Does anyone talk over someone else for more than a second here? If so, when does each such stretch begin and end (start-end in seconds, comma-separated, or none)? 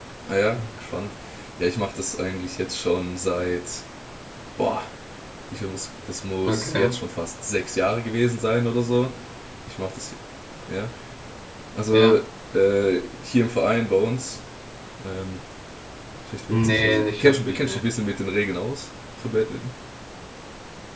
16.5-17.8